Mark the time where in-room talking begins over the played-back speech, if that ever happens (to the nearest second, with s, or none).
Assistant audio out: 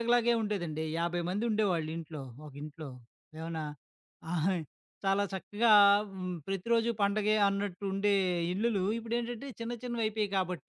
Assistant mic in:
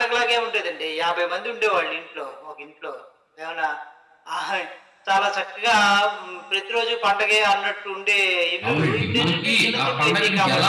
9 s